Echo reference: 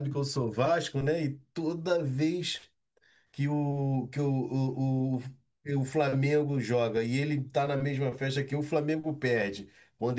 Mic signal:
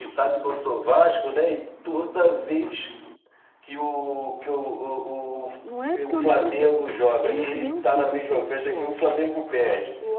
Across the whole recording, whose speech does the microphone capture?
both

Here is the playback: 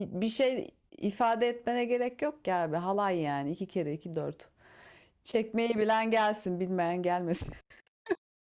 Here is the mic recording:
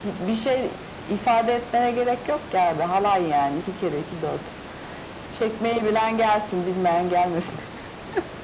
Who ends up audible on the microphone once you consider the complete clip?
echo only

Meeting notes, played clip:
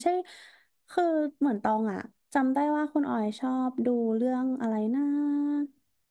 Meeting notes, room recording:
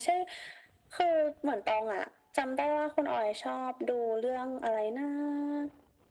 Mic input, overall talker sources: echo only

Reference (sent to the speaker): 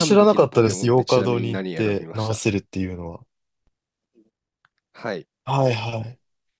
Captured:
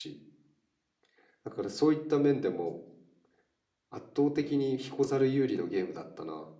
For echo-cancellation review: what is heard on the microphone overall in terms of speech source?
user only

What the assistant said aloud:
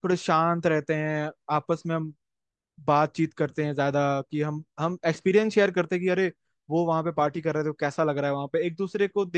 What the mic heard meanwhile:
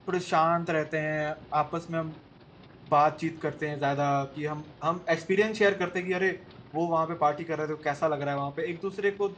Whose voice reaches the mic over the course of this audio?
echo only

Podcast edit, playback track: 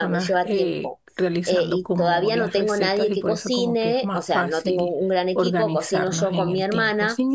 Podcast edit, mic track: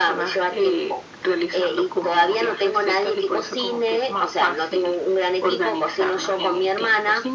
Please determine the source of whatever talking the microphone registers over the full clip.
echo only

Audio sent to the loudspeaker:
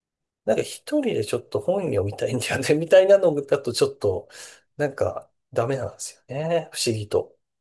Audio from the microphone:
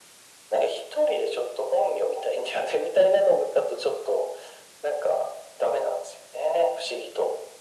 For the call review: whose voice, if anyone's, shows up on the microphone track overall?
echo only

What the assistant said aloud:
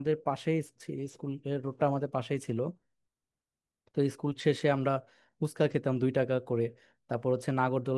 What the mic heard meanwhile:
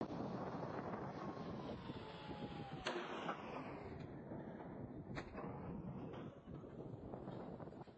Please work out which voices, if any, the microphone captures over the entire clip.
neither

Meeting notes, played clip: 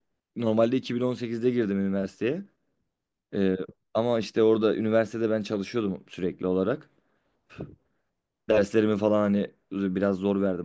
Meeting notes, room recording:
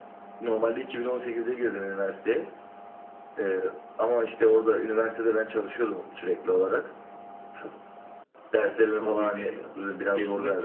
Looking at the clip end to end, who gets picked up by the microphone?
both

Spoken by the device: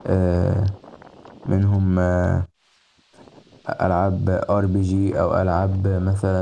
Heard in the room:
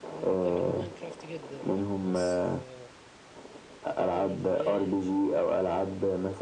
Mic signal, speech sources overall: both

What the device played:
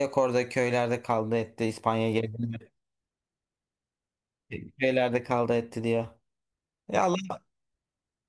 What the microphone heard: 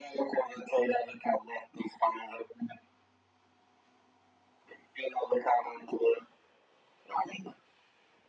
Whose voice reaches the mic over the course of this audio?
echo only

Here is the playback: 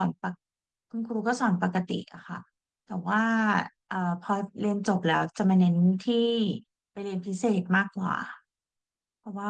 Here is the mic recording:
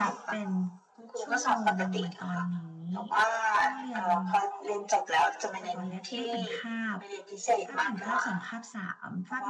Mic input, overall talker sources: both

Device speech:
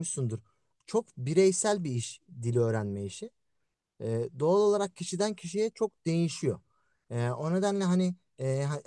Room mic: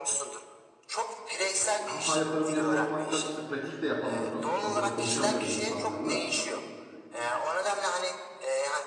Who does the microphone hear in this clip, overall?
both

